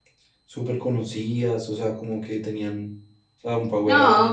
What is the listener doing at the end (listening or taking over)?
taking over